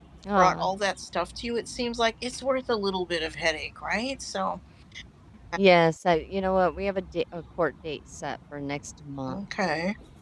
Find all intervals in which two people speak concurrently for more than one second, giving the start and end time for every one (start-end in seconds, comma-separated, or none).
none